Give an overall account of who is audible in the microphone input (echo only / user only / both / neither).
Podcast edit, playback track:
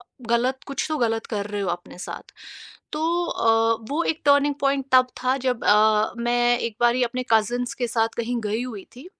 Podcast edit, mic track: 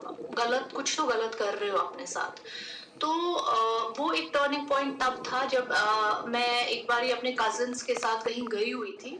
echo only